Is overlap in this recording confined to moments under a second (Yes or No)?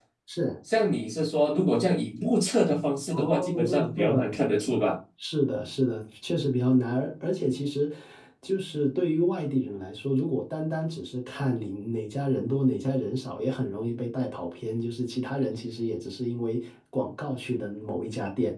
No